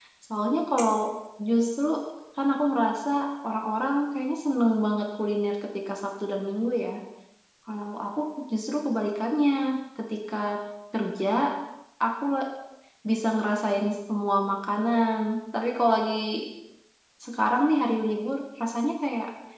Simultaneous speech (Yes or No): No